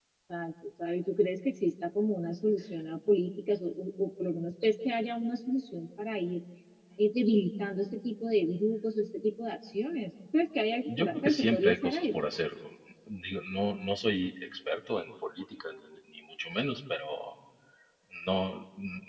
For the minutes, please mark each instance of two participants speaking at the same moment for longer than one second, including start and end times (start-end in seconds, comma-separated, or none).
10.9-12.3